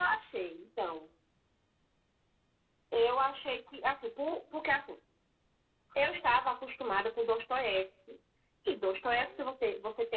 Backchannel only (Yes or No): Yes